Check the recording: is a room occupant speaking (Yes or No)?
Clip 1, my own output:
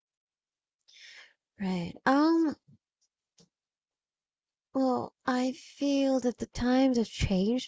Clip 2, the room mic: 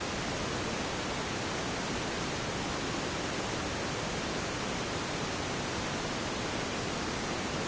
No